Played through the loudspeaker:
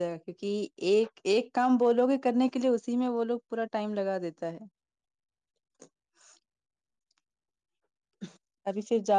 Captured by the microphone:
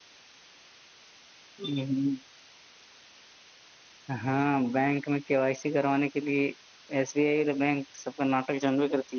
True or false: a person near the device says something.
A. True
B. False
A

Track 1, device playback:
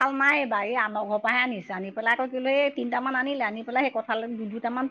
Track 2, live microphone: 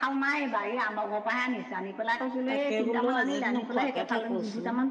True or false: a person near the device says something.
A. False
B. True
B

